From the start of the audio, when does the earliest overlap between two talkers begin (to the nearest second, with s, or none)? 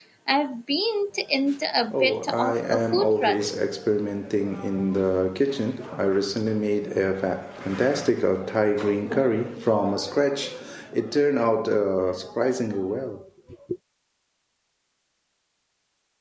2 s